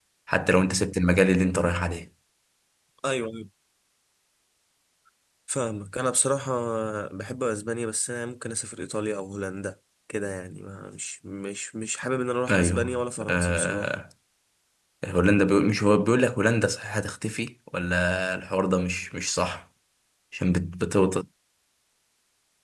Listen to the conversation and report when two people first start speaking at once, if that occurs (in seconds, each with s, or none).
12.5 s